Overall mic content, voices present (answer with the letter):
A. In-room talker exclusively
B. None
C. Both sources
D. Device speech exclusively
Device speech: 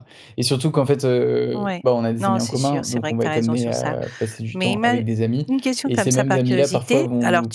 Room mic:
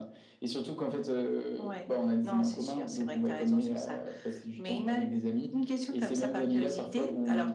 D